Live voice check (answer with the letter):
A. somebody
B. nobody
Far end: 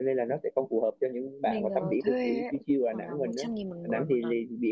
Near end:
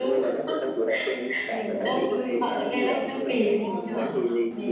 A